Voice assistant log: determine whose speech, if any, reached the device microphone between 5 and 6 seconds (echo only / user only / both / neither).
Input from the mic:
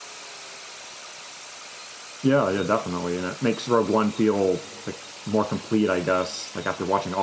user only